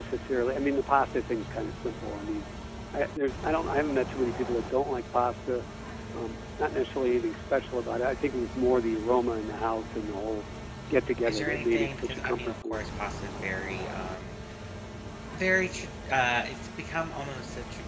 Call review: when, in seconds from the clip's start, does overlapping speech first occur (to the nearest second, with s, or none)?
11 s